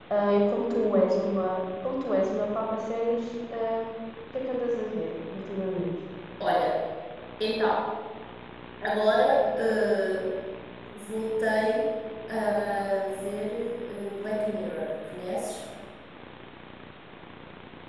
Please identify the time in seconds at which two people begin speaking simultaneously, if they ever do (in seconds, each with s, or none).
none